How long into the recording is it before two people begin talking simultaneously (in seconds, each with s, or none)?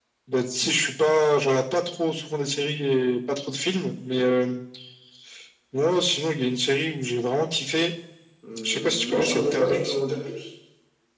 8.6 s